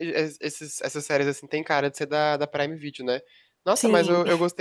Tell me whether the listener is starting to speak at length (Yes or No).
No